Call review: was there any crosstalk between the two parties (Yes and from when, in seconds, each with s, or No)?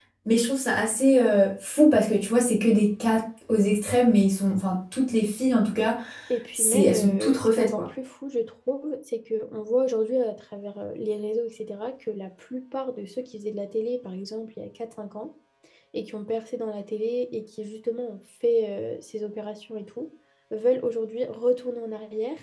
Yes, from 6.5 s